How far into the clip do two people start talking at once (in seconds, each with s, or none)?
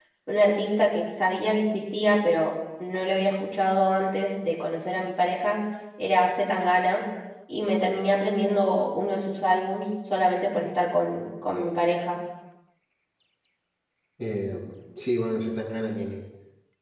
none